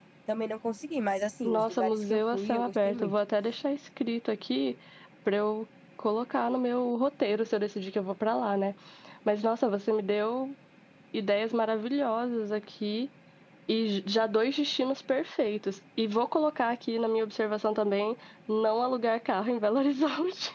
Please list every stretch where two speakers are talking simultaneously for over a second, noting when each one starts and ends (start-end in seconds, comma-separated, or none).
1.4-3.1